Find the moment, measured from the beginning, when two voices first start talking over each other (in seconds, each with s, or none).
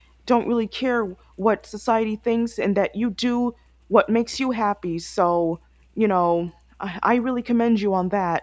none